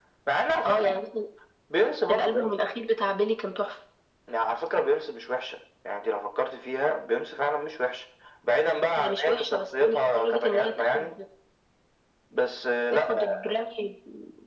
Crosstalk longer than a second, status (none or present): present